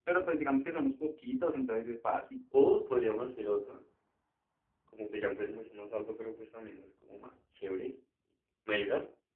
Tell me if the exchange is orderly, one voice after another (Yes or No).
Yes